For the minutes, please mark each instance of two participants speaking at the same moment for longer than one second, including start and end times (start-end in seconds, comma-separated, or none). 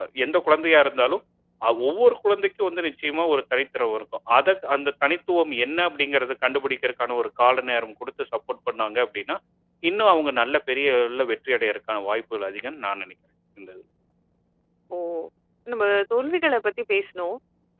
none